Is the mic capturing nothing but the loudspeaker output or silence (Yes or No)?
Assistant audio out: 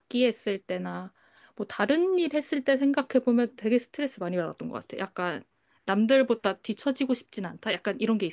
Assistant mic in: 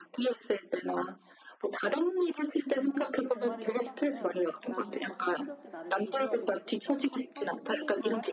No